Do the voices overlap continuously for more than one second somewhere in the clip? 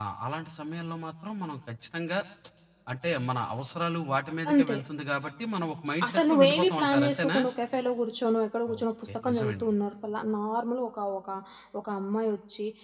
Yes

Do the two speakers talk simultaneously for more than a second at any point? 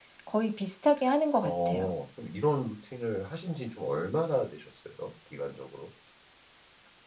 No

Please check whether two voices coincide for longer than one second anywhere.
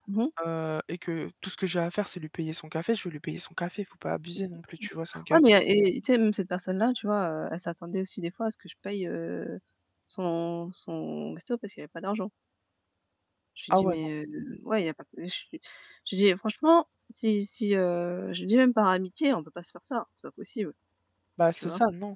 No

